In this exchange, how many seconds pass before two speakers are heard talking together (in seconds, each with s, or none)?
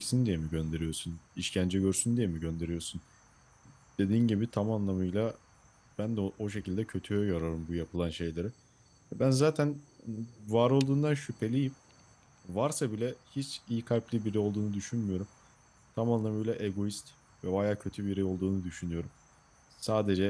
none